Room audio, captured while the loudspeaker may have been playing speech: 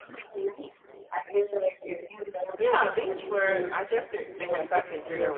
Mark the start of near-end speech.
2.6 s

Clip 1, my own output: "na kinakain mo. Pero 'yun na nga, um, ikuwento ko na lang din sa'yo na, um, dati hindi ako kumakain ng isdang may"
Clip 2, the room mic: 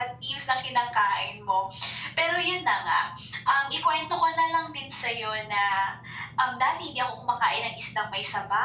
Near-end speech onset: none

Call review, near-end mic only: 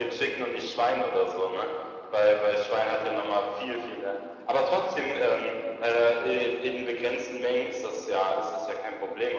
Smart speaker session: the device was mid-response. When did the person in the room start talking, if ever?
none

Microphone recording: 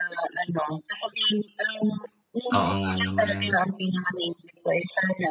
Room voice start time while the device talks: 2.5 s

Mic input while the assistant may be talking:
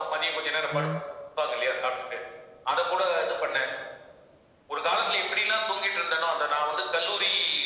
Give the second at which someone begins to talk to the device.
0.7 s

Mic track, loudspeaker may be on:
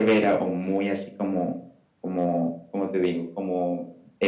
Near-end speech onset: none

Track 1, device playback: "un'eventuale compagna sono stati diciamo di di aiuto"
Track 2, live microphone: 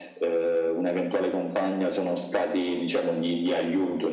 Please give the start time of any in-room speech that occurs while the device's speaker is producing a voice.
none

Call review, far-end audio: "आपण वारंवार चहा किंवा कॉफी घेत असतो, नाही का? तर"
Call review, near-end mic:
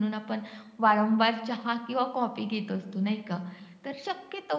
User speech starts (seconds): none

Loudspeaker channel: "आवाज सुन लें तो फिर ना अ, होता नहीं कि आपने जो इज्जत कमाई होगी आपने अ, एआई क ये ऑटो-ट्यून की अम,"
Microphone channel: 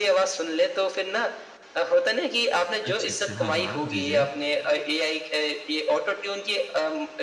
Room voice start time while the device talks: 2.8 s

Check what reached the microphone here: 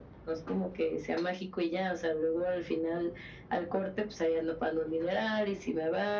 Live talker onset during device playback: none

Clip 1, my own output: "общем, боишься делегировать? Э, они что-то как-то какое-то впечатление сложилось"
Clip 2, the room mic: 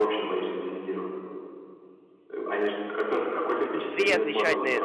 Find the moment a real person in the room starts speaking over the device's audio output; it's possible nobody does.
3.6 s

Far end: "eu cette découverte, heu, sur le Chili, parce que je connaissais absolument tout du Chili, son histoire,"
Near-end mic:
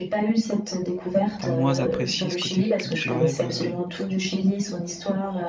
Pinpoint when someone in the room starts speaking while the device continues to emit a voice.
1.4 s

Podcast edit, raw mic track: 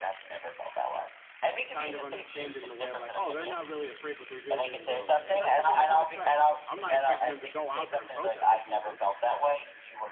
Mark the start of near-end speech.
1.7 s

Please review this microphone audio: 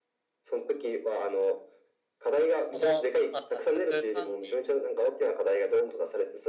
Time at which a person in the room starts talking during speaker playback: 2.6 s

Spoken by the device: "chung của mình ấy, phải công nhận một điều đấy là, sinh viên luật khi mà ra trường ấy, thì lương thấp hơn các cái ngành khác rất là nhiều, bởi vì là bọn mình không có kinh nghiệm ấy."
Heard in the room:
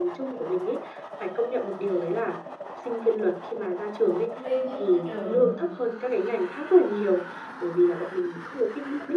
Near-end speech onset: 4.3 s

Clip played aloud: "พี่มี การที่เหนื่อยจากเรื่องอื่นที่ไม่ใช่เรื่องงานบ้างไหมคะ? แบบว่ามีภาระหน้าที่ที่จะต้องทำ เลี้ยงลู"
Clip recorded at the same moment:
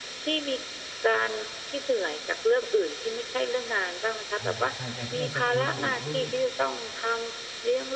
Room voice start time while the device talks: 4.4 s

